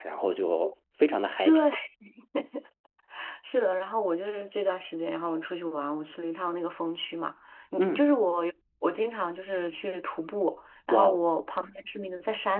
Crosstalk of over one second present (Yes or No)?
No